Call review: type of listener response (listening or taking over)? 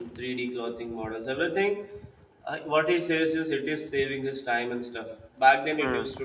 listening